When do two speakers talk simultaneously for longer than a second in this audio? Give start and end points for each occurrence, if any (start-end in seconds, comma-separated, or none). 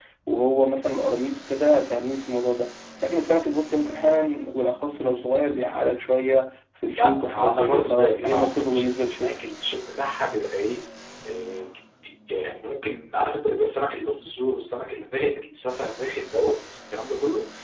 7.0-9.4